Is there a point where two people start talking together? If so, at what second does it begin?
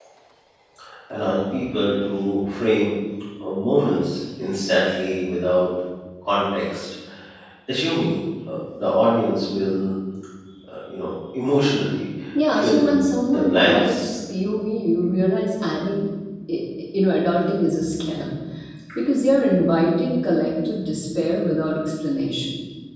12.5 s

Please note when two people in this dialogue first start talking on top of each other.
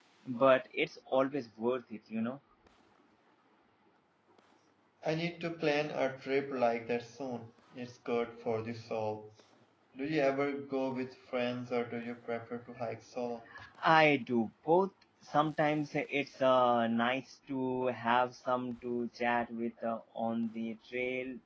none

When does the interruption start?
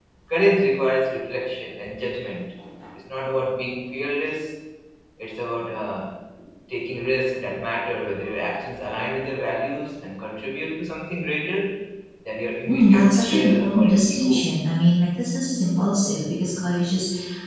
12.6 s

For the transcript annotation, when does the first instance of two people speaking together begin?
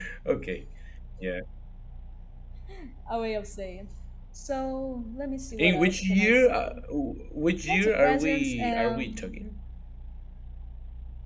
5.6 s

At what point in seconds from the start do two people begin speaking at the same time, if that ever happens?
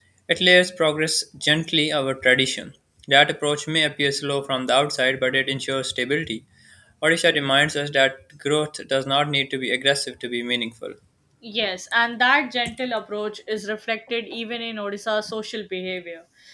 none

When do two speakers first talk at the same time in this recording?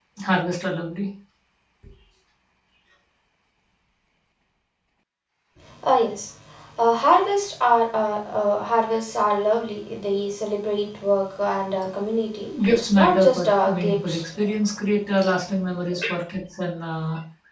12.9 s

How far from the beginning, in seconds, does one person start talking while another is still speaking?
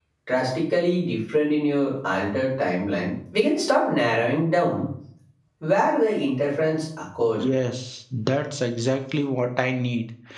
none

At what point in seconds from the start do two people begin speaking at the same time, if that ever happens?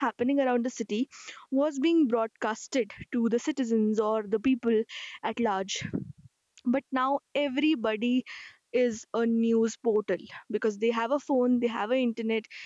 none

